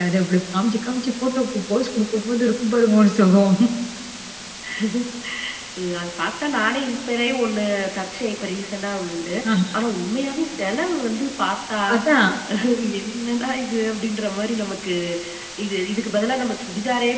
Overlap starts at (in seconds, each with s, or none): none